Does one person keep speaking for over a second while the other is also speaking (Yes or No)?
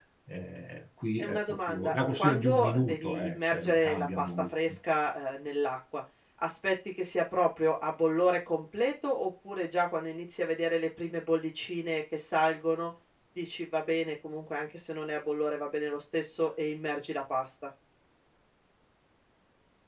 Yes